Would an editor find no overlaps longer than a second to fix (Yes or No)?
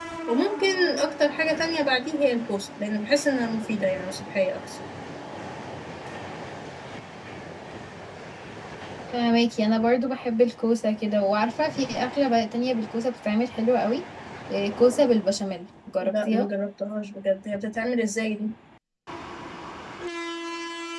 Yes